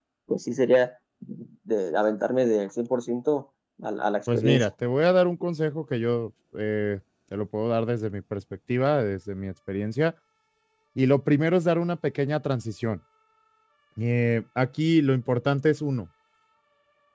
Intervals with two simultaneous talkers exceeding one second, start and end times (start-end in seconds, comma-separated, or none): none